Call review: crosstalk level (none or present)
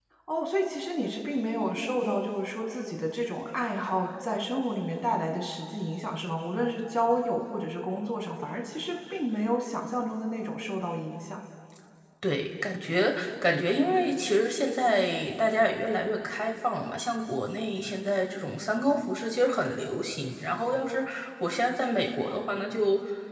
none